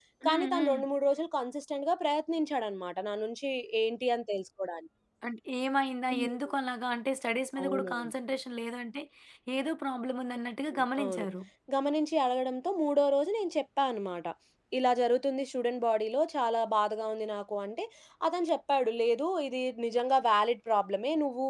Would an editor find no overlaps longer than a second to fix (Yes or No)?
Yes